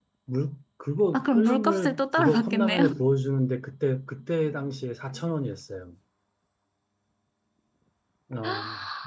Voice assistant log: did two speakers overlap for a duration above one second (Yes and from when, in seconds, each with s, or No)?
Yes, from 1.1 s